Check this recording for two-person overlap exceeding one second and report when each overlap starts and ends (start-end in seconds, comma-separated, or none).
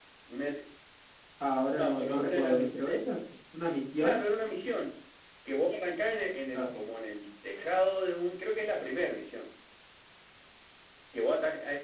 1.8-3.0